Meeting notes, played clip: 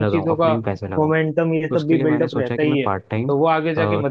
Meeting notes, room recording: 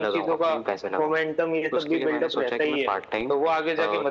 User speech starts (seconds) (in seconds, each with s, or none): none